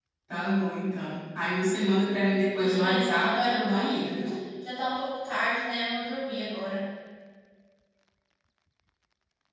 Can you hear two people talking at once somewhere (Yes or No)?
Yes